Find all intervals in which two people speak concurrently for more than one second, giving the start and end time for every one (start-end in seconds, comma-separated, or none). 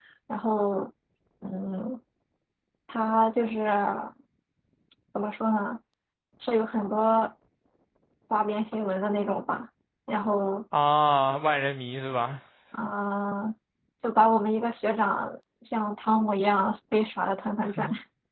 none